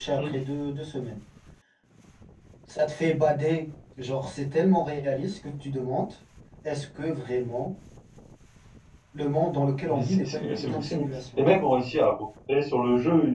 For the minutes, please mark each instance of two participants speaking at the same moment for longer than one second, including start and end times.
9.9-11.4

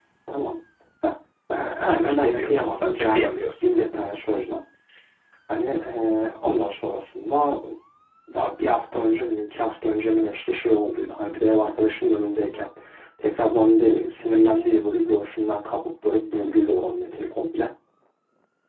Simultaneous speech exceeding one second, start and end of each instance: 1.8-3.7

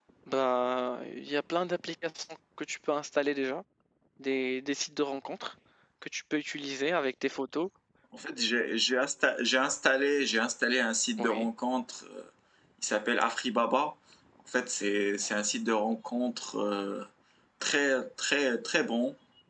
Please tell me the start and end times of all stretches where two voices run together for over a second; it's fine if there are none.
none

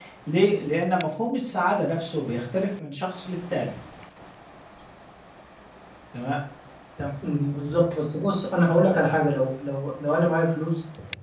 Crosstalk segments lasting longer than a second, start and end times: none

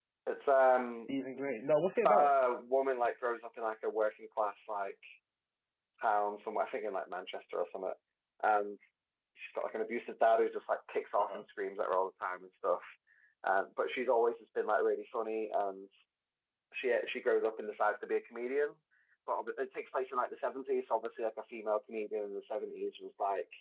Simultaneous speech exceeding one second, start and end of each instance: none

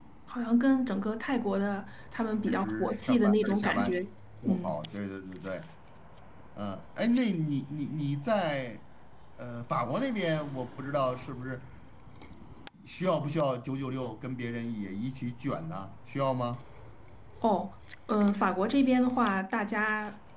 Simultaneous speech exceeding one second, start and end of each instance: 2.5-4.0

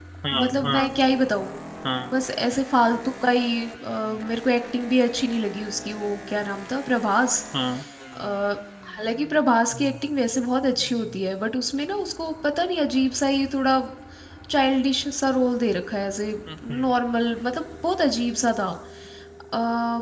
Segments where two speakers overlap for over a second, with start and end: none

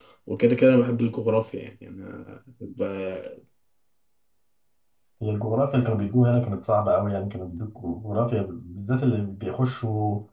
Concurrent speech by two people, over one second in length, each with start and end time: none

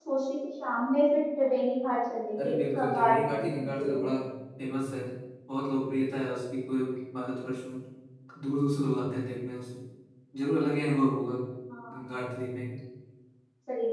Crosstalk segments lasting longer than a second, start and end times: 2.4-4.0

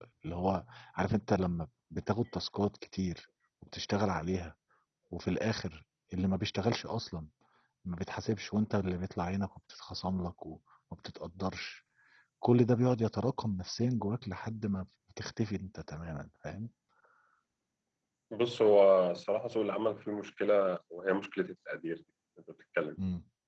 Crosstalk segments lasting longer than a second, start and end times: none

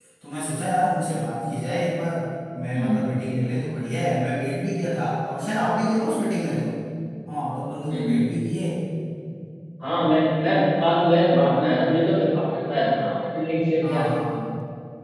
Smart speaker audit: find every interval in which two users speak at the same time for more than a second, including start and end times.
none

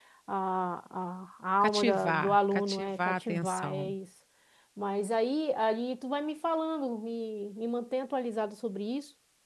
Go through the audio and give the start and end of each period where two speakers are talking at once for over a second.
1.6-3.9

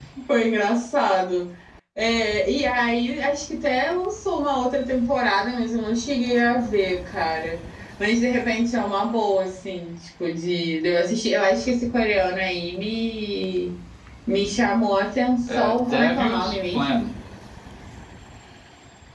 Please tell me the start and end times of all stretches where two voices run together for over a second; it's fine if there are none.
15.6-17.1

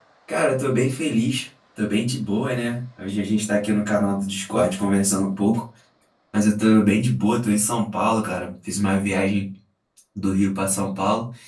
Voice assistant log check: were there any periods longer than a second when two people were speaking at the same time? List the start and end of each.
none

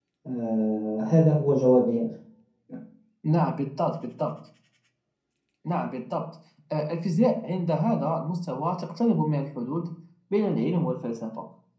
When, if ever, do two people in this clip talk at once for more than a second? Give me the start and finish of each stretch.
none

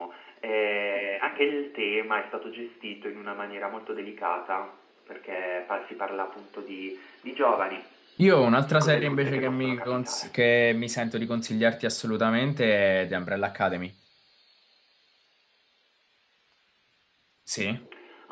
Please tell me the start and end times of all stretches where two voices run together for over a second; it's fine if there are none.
8.6-10.3

